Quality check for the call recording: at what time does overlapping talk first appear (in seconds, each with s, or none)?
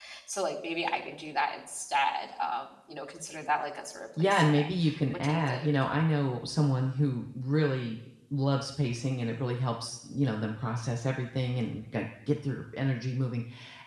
4.2 s